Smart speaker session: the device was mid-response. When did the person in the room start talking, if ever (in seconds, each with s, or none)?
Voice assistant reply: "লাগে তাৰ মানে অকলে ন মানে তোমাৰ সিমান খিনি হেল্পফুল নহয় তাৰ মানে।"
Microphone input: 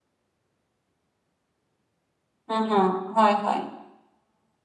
2.5 s